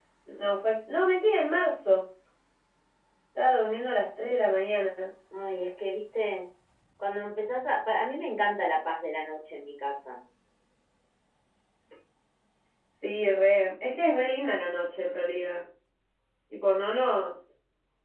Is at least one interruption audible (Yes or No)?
No